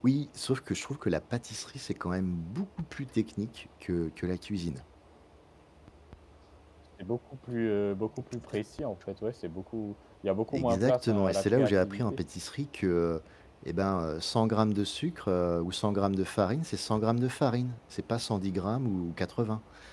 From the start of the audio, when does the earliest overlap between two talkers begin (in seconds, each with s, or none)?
10.5 s